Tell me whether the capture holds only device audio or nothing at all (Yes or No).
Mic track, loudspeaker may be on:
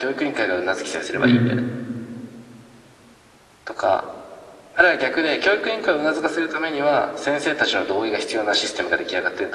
No